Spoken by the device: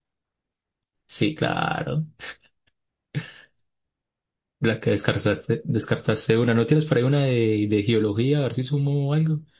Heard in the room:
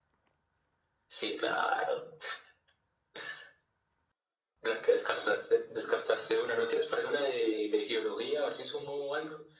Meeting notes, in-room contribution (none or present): none